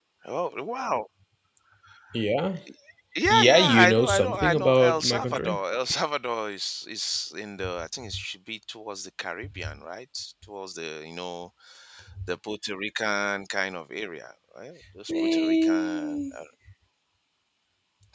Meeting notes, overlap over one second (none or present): present